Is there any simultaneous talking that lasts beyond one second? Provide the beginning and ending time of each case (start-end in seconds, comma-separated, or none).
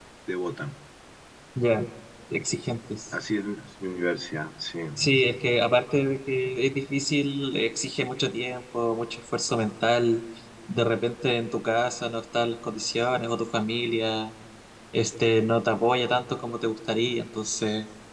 none